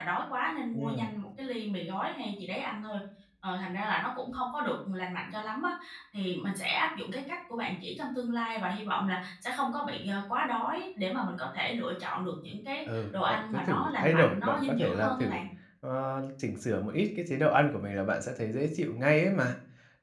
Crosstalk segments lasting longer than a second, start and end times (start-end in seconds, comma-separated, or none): 12.9-15.4